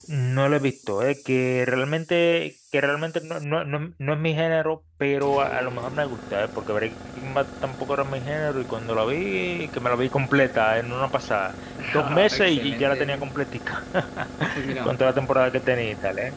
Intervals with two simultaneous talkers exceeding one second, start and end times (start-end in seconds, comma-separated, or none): 11.9-13.3